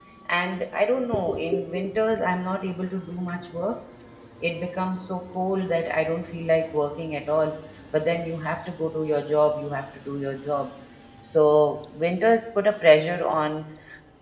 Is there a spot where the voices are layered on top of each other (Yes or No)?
No